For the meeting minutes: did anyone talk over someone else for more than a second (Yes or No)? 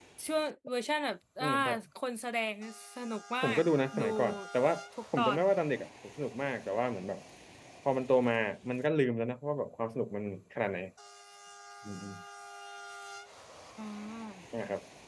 No